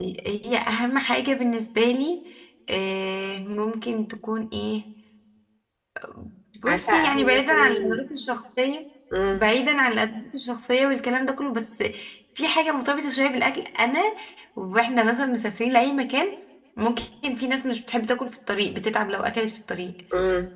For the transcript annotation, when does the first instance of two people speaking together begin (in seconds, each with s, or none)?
6.7 s